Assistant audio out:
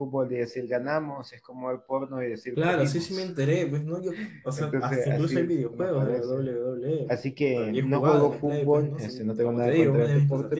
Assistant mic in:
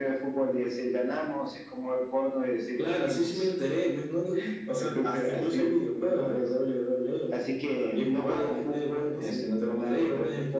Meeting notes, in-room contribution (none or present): none